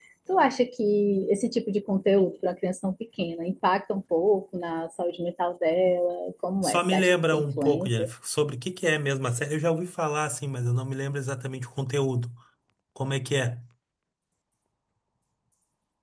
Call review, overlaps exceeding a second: present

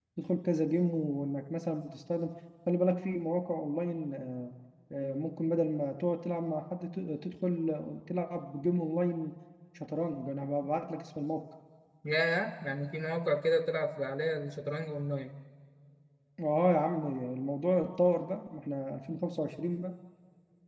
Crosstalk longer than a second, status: none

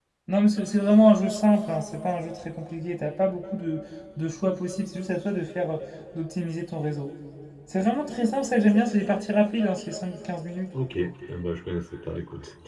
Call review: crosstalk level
none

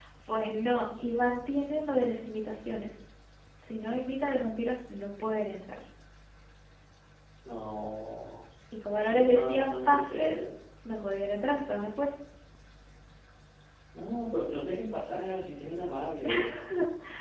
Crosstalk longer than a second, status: present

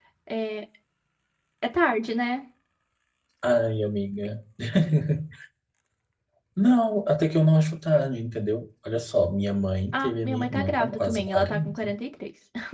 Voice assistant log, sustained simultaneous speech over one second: present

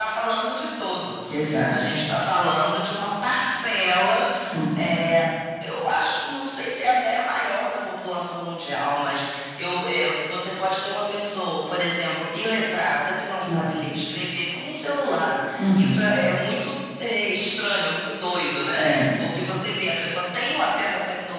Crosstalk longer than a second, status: none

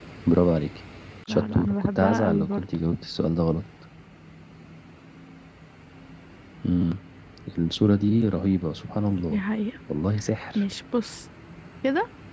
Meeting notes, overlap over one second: present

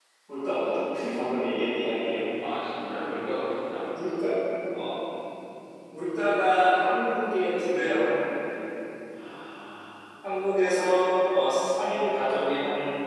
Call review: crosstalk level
none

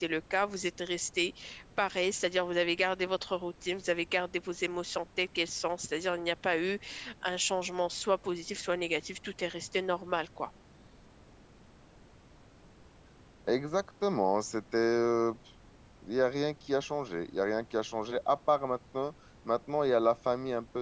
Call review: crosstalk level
none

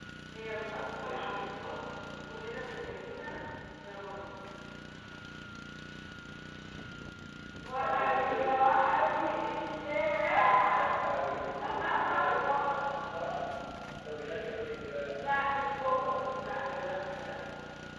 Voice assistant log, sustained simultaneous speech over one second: present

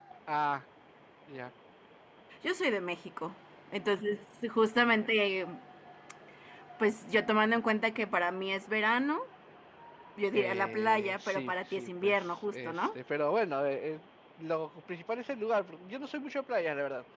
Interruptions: present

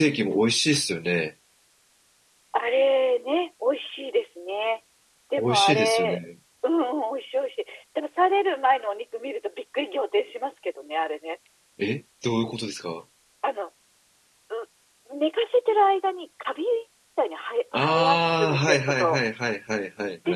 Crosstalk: present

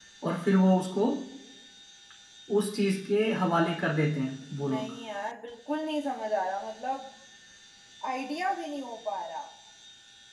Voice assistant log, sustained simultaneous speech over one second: none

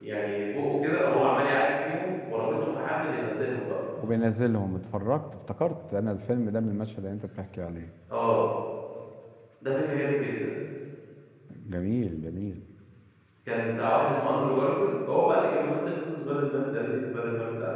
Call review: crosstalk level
none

